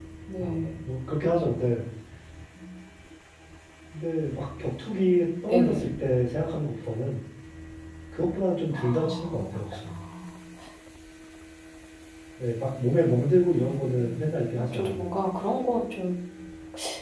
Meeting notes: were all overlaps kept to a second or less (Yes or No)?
No